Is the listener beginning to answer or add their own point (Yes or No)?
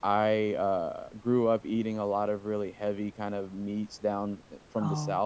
No